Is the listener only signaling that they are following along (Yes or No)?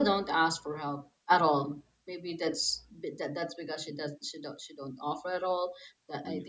Yes